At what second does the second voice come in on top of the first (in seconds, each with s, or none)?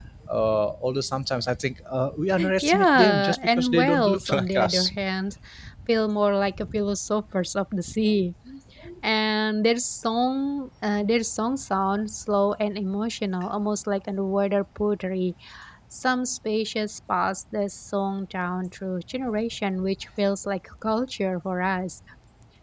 2.4 s